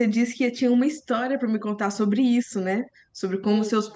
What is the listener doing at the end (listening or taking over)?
listening